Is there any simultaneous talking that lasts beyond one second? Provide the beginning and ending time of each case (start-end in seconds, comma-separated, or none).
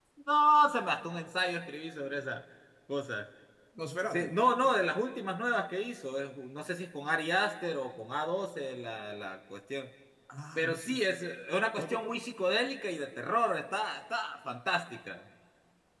none